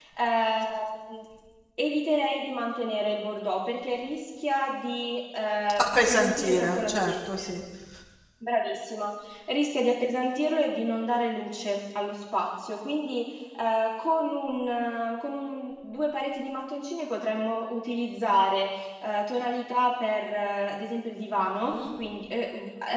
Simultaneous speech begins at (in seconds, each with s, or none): 5.8 s